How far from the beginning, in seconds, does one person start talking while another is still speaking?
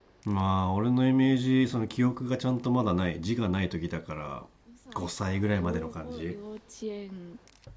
5 s

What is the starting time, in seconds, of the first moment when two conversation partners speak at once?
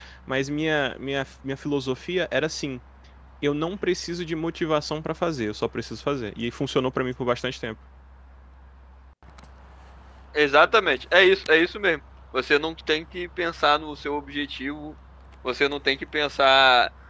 none

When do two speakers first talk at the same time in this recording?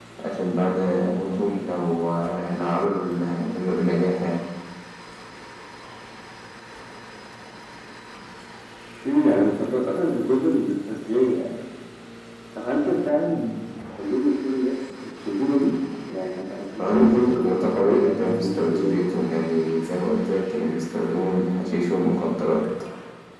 17 s

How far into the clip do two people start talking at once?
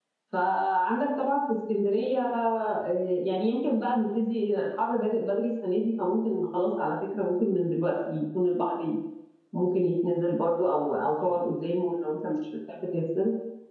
none

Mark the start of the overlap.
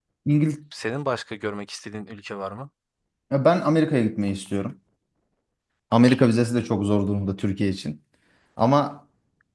none

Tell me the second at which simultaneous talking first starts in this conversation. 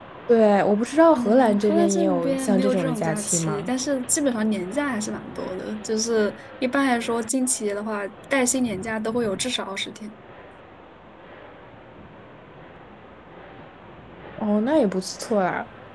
1 s

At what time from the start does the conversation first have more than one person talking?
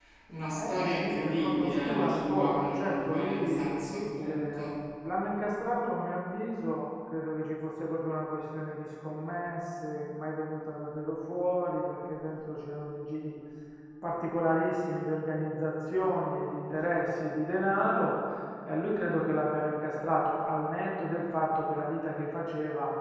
1 s

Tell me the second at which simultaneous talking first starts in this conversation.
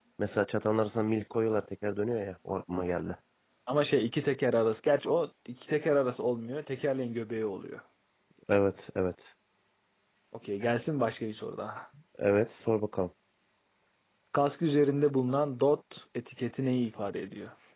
none

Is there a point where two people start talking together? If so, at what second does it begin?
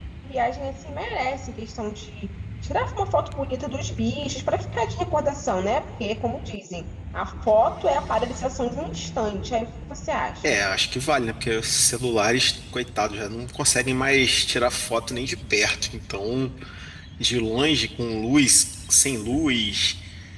none

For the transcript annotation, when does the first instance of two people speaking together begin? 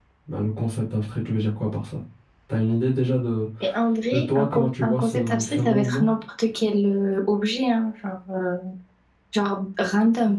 4 s

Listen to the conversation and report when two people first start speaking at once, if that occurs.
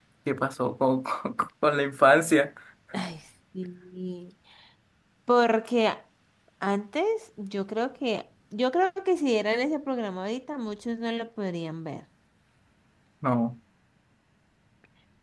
none

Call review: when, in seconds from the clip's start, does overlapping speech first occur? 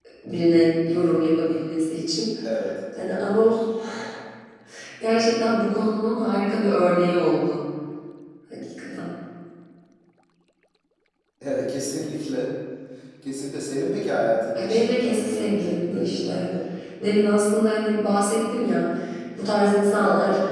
15 s

